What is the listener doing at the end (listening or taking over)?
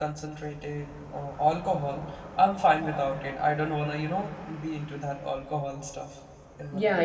taking over